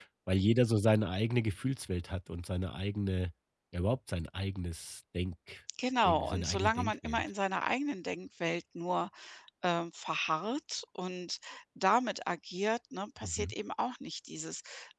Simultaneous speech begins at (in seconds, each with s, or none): 6.0 s